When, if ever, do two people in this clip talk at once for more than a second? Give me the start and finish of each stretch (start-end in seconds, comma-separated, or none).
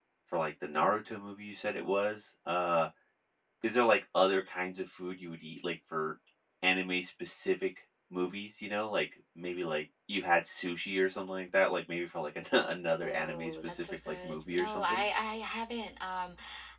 13.0-15.0